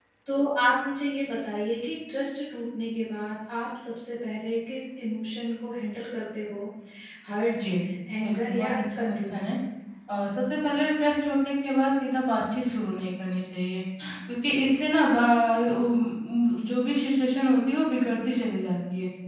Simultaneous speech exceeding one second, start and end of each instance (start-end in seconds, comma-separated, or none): 8.2-9.5